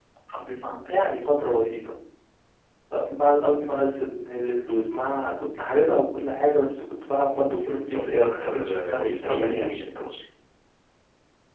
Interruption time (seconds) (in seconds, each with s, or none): 7.9 s